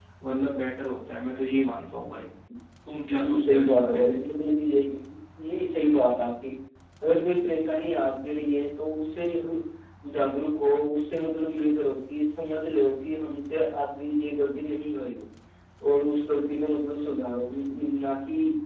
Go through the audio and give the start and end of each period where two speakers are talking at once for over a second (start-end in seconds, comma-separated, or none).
2.9-4.2